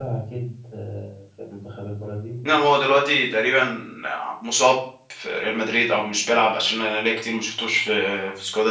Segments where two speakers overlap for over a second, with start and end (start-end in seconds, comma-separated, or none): none